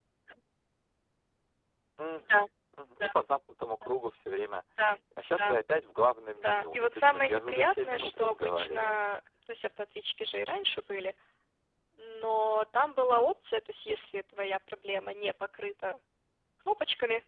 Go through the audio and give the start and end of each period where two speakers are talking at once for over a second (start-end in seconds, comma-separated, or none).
6.4-9.0